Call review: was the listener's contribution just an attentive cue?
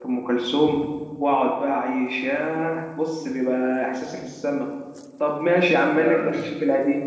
Yes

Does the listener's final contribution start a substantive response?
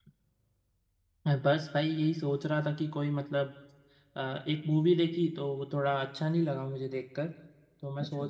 No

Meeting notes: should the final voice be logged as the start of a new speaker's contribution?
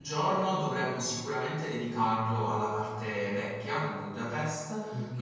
No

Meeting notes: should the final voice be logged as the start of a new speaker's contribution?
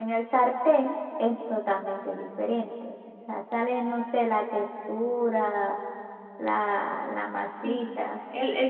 Yes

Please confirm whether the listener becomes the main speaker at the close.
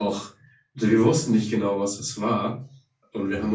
No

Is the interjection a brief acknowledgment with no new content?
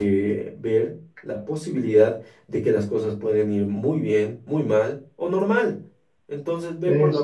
Yes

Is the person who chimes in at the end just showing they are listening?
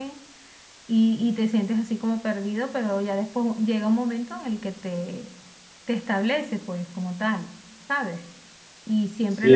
No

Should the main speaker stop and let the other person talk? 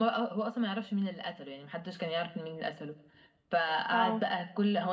No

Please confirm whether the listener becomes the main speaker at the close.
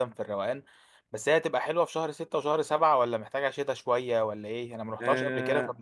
Yes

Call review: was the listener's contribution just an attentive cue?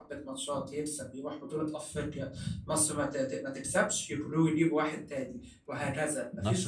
Yes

